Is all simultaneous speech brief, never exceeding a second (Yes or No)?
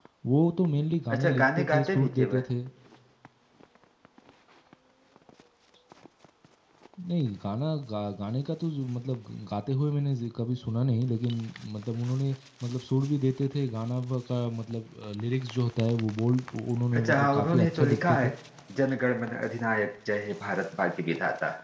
No